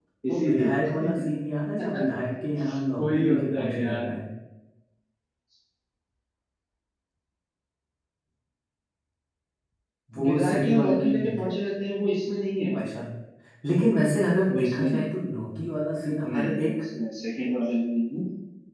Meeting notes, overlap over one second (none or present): present